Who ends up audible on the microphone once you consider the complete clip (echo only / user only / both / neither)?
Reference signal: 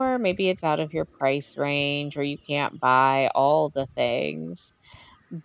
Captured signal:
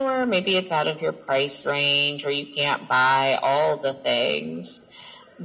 echo only